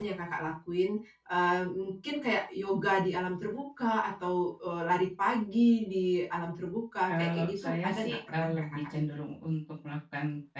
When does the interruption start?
7.0 s

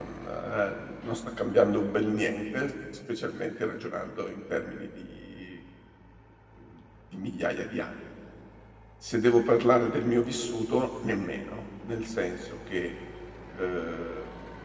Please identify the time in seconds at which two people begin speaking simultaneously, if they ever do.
none

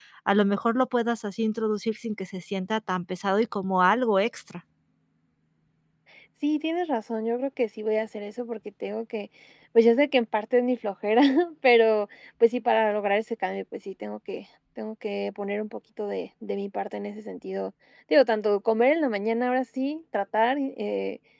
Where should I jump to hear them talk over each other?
none

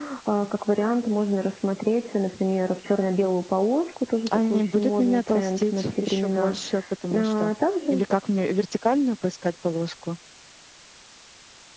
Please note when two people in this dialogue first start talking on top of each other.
4.3 s

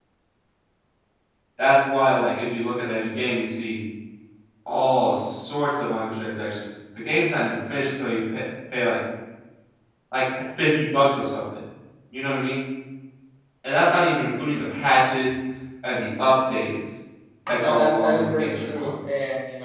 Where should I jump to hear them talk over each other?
17.5 s

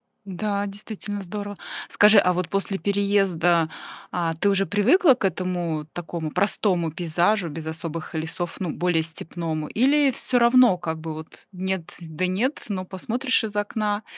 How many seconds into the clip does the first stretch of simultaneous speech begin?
none

